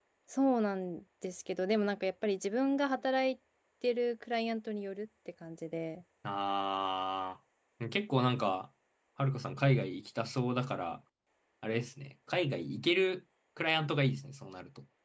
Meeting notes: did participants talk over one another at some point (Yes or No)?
No